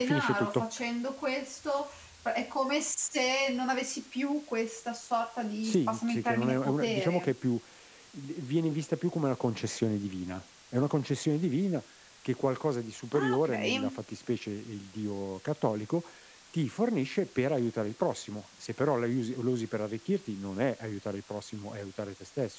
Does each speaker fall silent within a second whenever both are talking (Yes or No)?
No